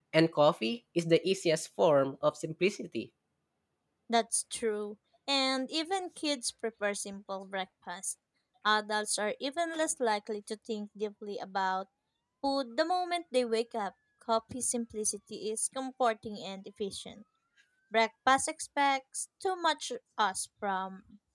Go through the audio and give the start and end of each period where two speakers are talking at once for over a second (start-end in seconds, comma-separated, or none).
none